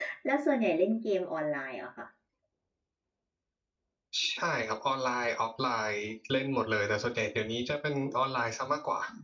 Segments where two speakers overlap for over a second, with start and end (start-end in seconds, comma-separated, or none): none